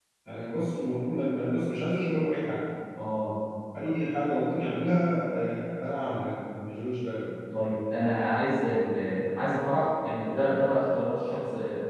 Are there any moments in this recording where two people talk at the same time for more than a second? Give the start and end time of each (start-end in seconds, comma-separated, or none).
none